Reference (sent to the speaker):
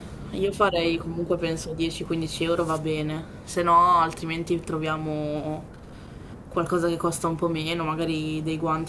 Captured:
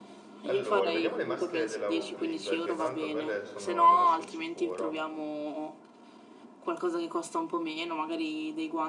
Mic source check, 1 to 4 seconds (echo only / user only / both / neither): both